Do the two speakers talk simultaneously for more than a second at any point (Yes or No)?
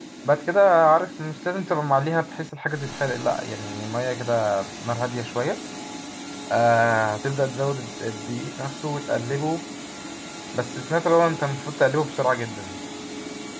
No